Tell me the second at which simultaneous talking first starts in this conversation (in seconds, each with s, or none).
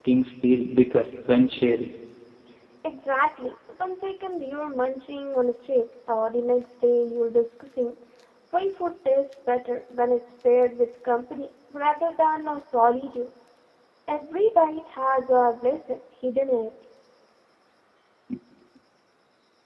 none